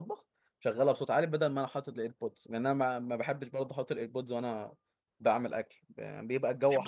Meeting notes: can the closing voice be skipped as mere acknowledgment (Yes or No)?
Yes